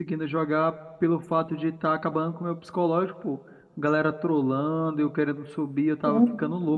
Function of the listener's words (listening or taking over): taking over